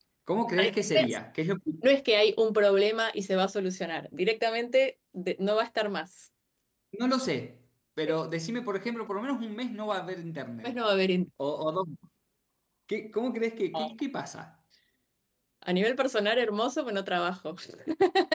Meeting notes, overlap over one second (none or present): none